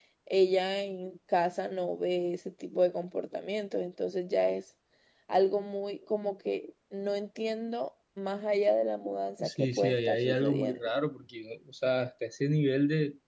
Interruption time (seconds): 9.4 s

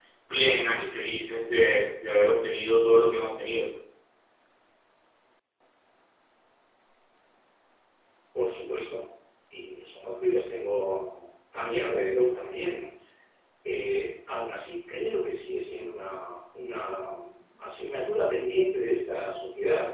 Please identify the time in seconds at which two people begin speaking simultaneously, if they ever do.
none

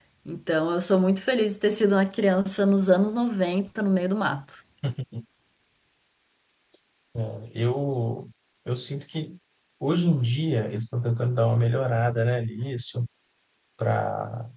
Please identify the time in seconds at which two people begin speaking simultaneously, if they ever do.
none

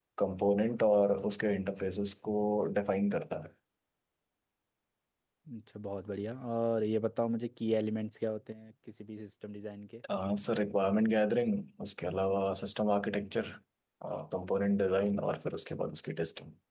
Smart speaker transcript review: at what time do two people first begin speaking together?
none

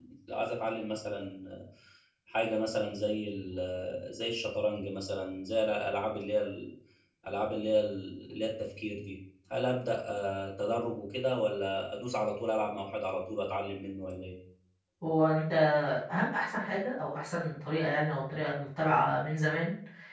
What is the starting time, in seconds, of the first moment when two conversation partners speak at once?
none

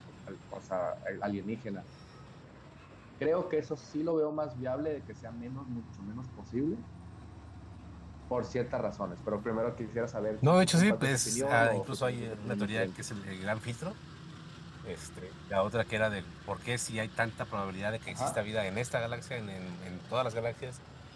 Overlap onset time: 10.5 s

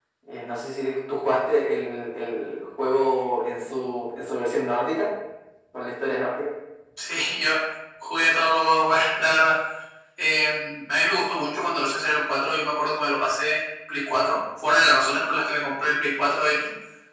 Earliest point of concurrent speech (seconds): none

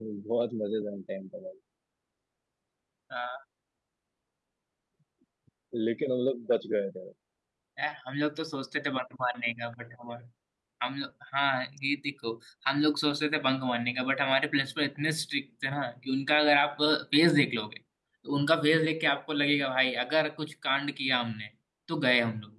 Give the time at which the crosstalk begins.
none

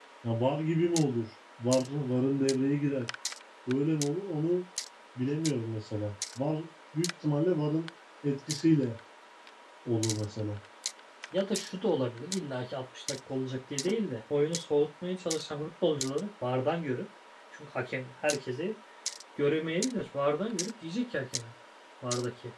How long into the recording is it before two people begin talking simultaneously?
none

